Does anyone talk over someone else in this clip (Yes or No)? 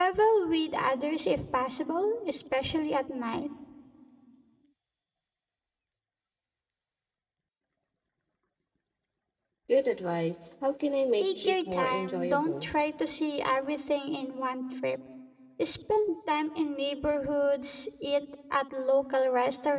Yes